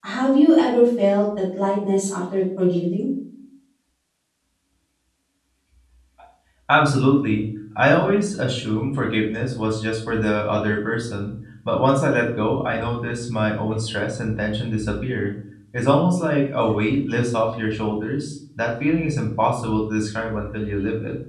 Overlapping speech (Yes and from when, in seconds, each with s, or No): No